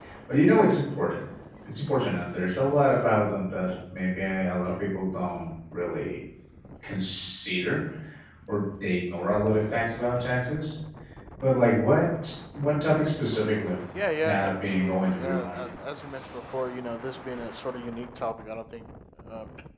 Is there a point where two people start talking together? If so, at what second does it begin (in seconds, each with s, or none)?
14.2 s